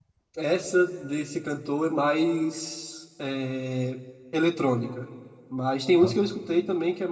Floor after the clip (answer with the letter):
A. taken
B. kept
B